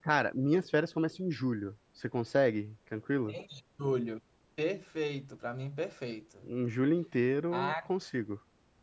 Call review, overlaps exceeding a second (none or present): none